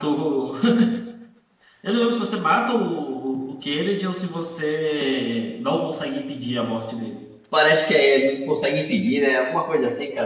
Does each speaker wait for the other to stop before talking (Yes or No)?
Yes